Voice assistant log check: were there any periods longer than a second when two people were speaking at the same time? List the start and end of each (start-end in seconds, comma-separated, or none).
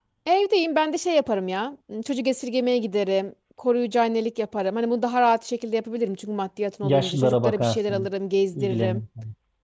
6.8-8.1